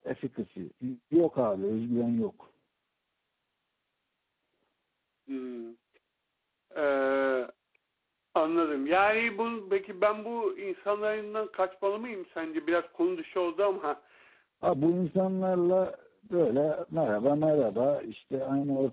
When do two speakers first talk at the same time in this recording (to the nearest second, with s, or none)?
none